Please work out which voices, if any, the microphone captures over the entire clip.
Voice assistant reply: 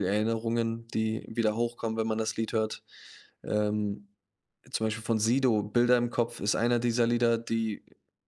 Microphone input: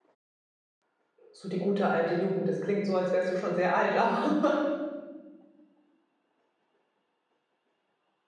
user only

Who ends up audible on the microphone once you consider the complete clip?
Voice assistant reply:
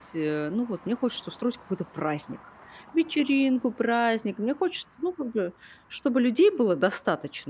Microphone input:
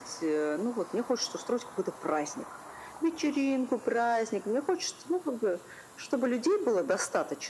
echo only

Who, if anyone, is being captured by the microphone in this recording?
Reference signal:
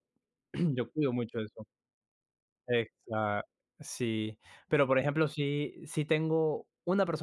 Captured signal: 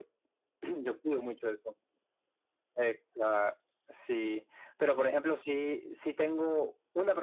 echo only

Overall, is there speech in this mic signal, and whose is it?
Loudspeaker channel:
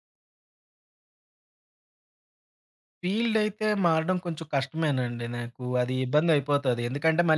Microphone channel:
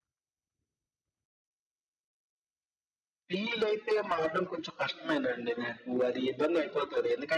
echo only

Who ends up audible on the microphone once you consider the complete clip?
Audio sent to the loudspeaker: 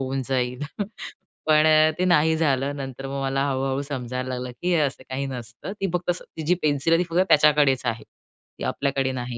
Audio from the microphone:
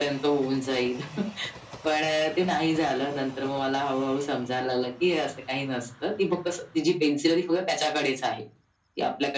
echo only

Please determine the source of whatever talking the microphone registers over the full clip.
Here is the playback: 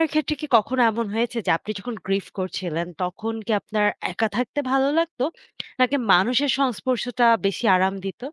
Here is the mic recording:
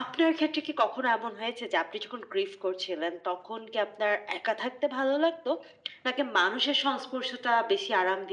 echo only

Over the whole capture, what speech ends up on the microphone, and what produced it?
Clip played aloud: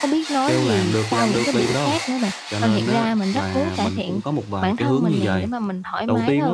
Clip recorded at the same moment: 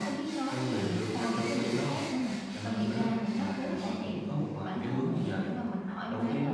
echo only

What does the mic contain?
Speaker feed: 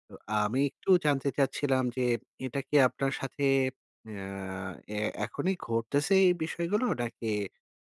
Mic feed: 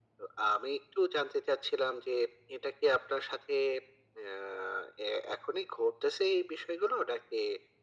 echo only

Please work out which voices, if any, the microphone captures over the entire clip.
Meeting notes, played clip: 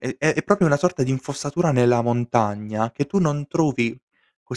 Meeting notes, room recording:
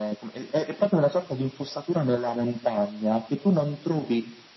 echo only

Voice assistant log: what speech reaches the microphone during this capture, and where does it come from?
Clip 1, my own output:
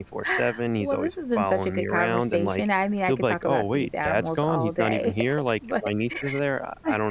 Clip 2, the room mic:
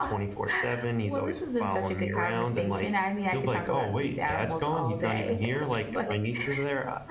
echo only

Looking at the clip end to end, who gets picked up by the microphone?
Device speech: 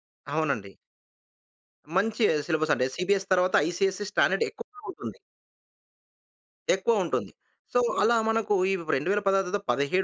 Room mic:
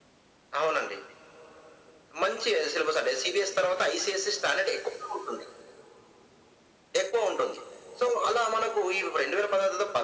echo only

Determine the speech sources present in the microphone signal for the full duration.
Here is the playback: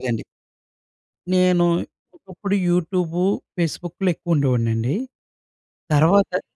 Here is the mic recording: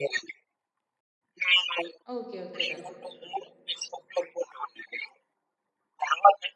both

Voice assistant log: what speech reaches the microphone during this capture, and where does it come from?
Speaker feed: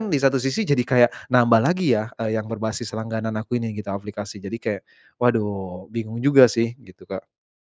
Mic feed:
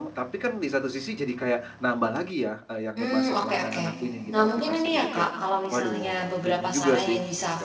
both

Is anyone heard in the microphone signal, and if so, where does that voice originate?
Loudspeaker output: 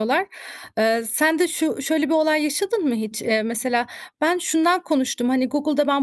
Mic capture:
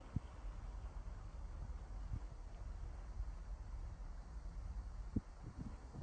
neither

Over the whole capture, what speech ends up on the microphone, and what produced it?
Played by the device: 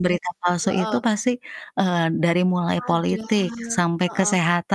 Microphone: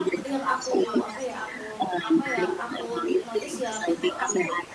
both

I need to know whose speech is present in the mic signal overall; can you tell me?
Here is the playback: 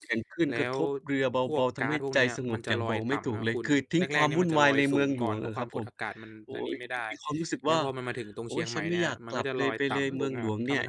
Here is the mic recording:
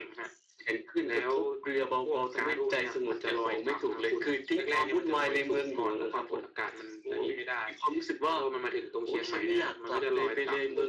echo only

